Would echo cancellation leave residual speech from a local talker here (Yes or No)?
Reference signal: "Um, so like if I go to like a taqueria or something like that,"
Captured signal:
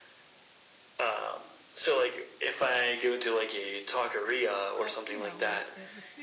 Yes